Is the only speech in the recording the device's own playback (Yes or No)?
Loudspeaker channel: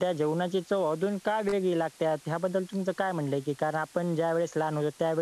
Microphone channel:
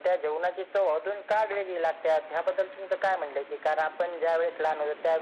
Yes